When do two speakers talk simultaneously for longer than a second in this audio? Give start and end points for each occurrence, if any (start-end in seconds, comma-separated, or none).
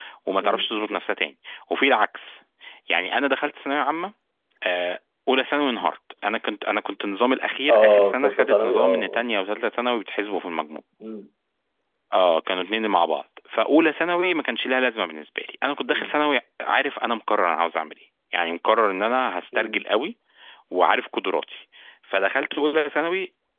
7.7-9.2